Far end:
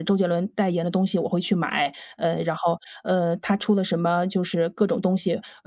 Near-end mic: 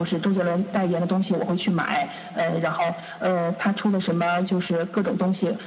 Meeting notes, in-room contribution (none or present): none